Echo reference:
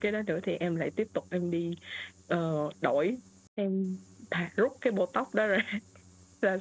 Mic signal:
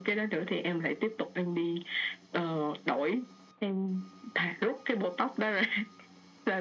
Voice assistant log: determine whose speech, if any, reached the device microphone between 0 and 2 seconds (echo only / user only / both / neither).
echo only